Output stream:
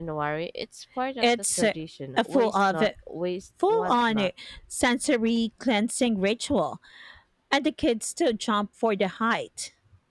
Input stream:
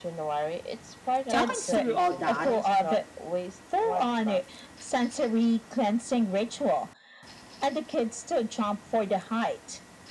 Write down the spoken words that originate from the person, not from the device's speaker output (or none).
talking through all that